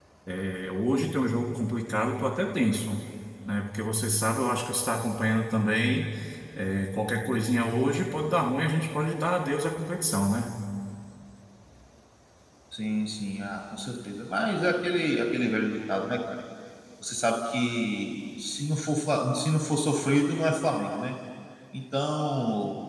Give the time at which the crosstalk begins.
none

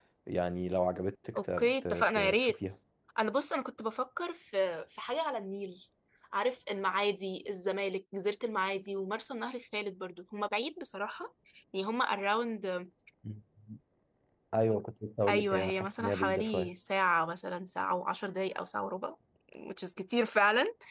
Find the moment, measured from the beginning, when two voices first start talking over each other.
1.4 s

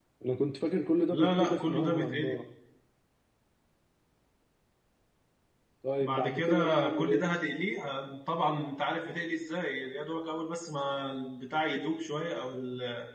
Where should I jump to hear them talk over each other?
1.1 s

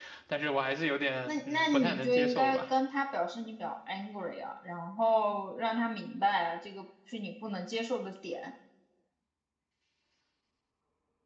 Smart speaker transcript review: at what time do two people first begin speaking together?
1.3 s

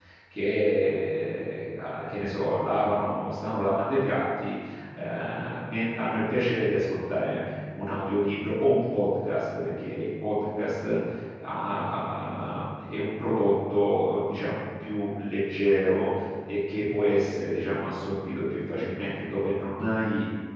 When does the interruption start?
none

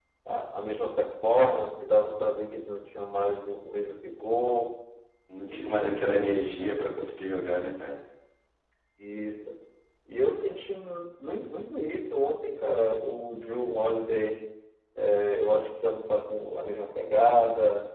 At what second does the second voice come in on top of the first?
5.4 s

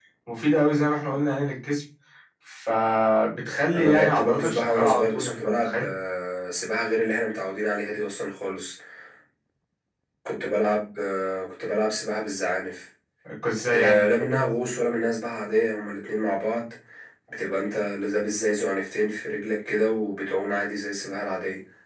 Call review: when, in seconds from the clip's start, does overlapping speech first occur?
3.7 s

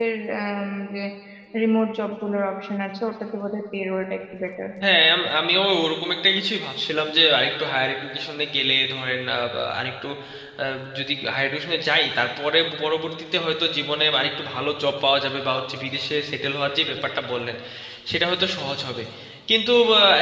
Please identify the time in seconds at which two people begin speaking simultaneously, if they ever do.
none

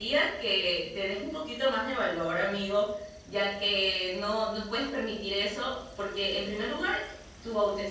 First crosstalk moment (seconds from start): none

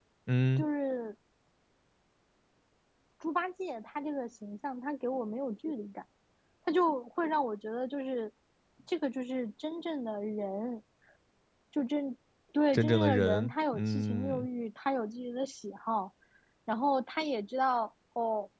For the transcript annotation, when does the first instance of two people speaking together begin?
12.7 s

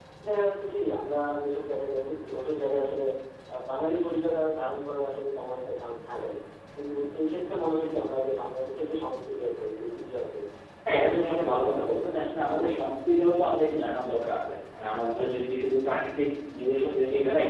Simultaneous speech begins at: 10.9 s

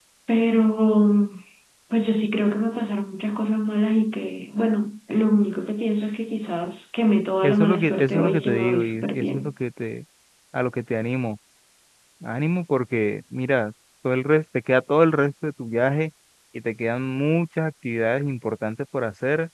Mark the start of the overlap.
7.4 s

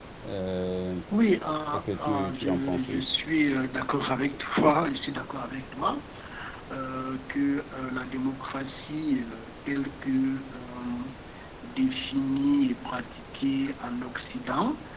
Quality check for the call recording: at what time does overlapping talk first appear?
1.7 s

